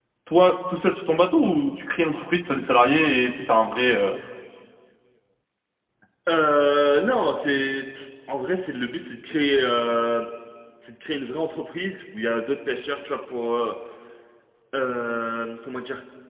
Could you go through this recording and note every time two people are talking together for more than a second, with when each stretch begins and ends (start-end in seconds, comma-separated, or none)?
none